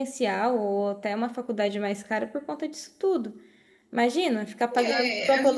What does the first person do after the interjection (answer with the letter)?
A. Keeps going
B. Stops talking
B